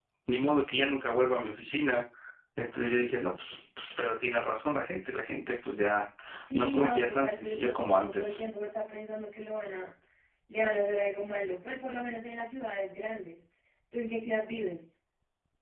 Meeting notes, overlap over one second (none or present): present